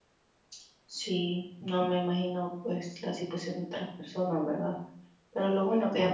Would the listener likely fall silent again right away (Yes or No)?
Yes